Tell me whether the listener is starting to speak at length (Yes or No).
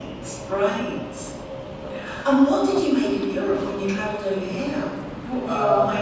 Yes